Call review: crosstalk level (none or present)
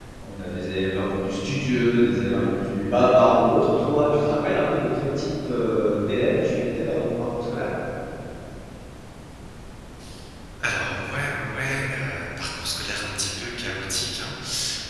none